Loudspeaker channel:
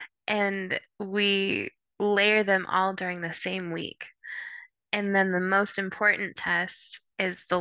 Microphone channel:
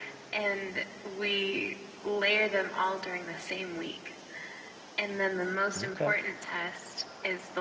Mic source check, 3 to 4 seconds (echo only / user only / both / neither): echo only